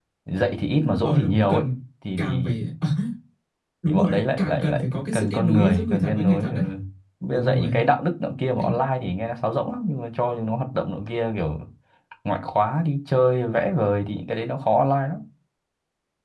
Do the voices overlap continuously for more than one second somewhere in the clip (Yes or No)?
Yes